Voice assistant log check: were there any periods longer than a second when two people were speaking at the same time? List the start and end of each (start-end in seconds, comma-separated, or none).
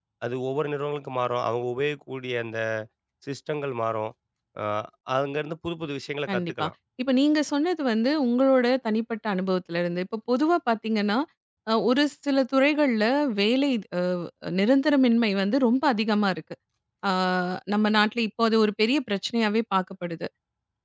none